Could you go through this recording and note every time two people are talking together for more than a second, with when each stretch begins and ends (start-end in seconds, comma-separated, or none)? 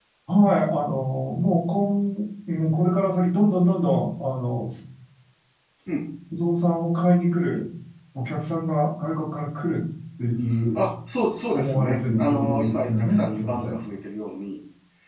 11.5-13.8